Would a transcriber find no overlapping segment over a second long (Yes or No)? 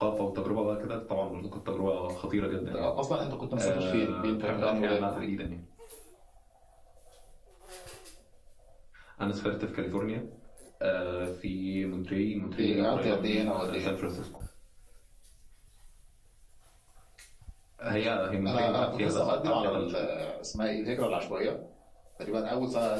No